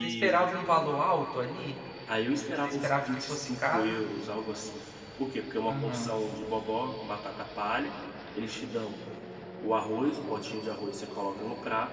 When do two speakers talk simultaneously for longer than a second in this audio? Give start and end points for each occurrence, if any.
2.6-4.0

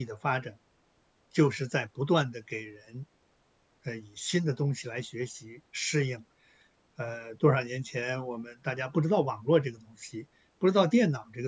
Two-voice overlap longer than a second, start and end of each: none

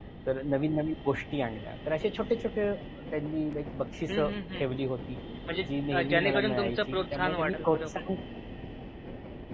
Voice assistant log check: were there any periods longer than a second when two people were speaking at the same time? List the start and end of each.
5.6-7.8

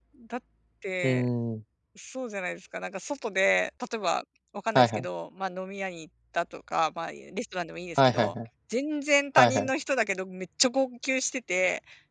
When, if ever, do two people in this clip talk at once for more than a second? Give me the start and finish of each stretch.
none

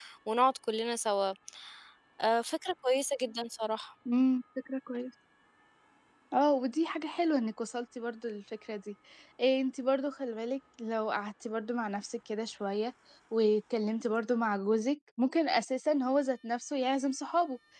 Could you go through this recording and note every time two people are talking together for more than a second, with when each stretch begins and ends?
none

